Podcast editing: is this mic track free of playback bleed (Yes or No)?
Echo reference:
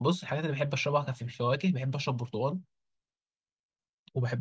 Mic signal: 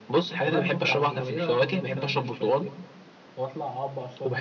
No